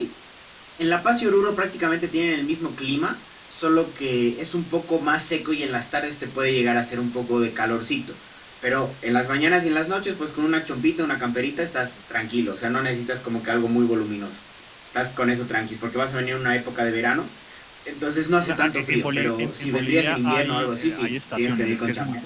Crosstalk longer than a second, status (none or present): present